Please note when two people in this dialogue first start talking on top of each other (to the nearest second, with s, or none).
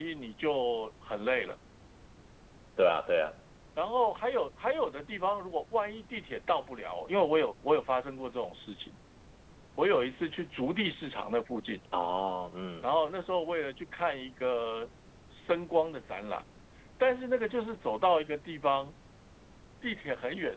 none